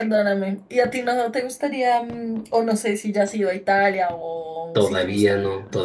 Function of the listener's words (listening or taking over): taking over